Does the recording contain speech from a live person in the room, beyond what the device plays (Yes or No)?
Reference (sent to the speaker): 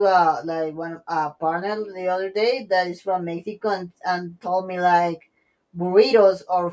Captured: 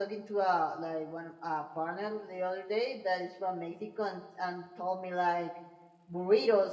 No